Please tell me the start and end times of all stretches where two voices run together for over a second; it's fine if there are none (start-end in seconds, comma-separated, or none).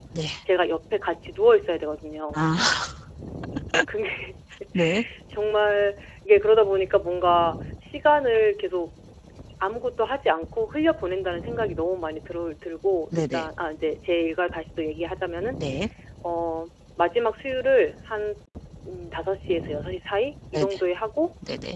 none